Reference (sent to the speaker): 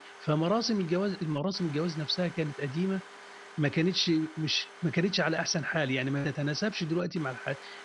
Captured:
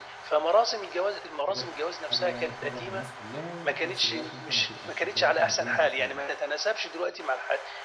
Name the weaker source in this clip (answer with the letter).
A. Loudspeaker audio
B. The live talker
B